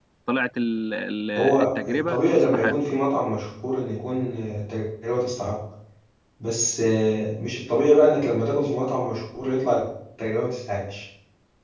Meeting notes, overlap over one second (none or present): present